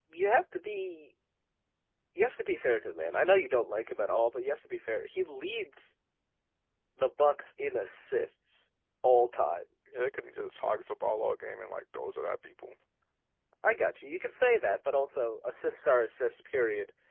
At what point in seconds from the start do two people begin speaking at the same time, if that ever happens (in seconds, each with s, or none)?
none